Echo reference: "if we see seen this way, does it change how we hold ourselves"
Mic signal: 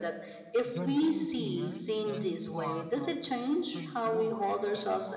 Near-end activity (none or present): present